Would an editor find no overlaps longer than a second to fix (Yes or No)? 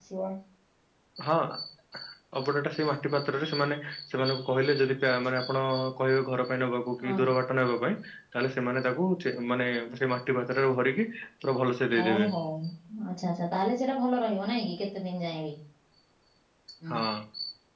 Yes